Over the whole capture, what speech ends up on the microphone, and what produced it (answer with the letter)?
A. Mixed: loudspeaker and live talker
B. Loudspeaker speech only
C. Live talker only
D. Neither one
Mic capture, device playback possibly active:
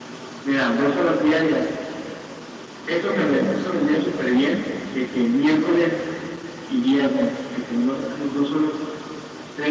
A